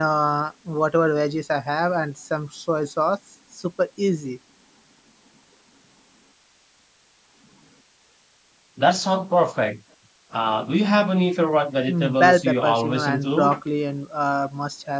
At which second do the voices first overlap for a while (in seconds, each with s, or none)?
11.9 s